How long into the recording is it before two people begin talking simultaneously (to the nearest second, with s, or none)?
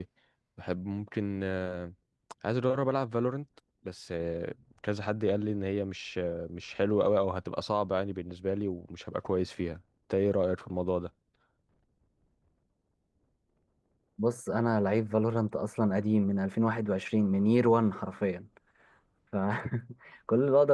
none